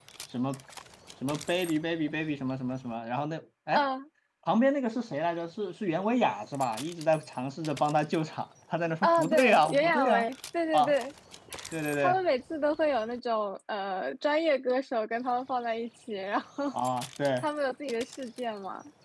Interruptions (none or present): present